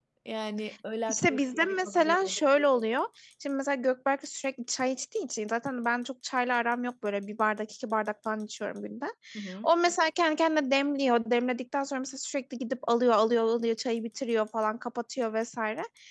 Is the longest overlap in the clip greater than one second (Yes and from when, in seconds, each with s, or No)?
Yes, from 1.1 s